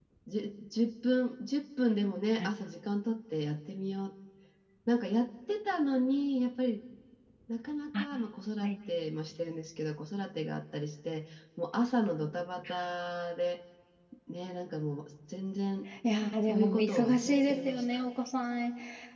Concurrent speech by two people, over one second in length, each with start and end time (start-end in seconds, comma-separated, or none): 16.5-17.9